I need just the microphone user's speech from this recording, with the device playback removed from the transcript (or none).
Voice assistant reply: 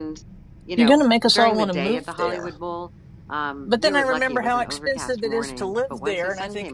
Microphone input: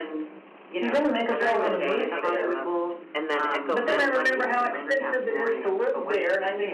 That was probably the one I hiked the most. And then Echo Mountain,